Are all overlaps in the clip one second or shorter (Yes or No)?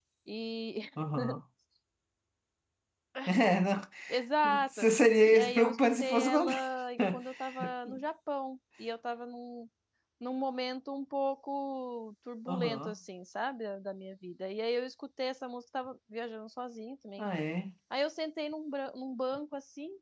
No